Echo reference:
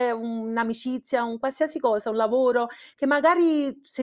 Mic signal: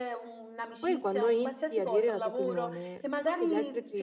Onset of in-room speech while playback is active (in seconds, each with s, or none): 0.8 s